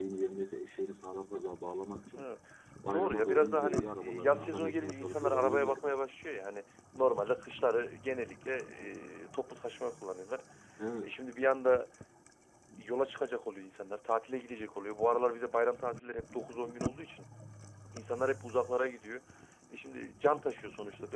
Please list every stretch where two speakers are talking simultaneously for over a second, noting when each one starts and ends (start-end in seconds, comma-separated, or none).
2.9-5.9